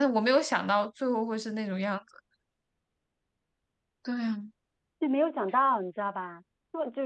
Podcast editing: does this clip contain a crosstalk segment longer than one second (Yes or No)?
No